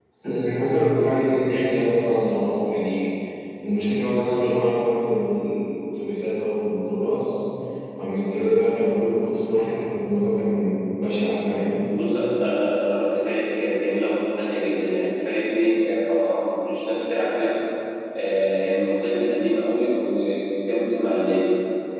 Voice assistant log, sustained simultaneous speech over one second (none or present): none